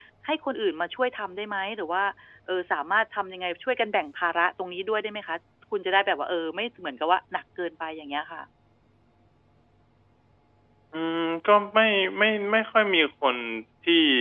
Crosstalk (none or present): none